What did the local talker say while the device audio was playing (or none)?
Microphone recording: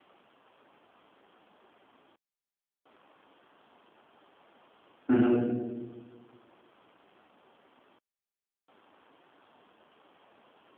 Мгм.